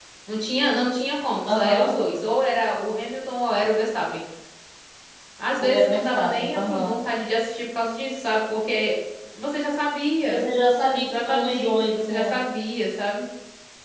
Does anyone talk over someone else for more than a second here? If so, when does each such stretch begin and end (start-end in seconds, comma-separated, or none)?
5.6-6.9, 11.0-12.4